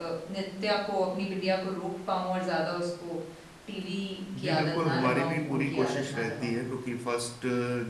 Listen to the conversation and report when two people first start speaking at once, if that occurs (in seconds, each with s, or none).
4.4 s